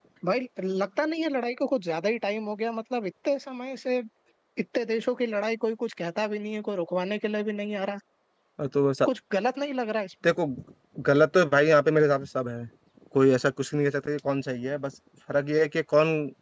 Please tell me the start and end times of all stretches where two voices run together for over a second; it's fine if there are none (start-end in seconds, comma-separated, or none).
none